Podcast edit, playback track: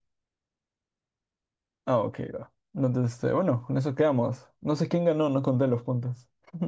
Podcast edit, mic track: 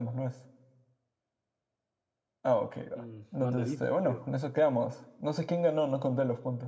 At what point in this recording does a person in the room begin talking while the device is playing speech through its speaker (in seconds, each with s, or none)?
2.9 s